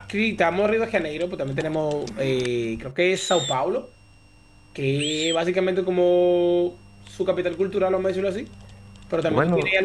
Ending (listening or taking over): listening